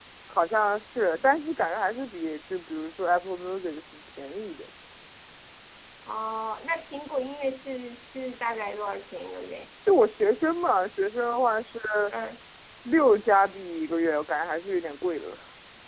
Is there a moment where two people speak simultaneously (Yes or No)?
No